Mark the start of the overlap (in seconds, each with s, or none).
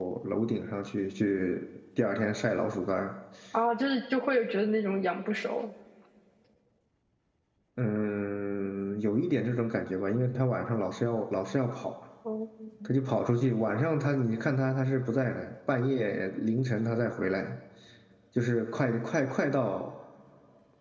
none